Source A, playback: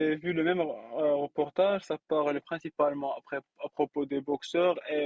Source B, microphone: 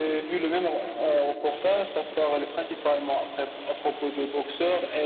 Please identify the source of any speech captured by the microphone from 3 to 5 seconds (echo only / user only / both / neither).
echo only